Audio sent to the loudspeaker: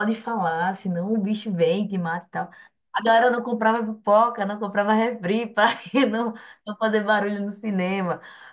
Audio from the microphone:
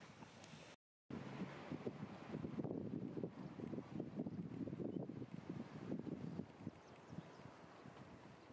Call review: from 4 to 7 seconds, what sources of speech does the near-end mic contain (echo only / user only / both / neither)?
neither